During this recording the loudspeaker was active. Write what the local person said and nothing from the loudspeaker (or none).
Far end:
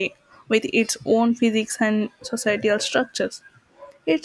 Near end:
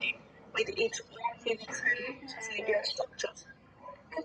accurate and. Uh,